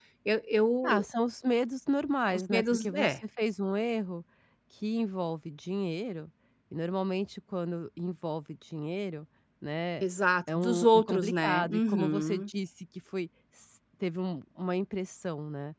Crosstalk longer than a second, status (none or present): present